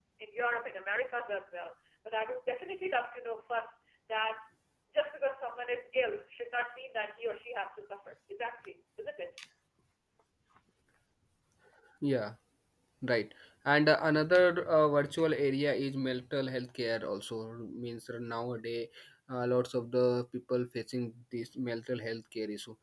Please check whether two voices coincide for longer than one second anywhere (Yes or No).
No